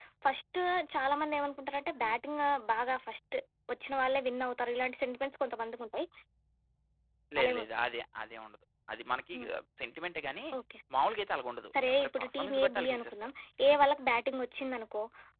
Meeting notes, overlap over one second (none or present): present